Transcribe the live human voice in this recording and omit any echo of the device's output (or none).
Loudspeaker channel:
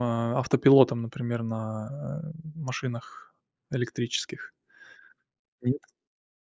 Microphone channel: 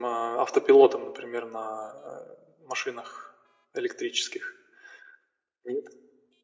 none